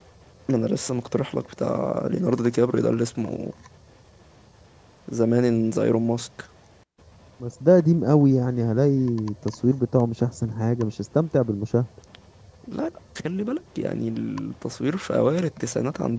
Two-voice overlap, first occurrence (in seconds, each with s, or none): none